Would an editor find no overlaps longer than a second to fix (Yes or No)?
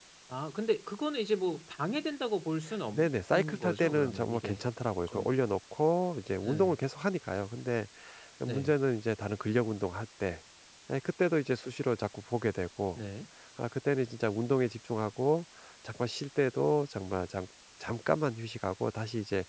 No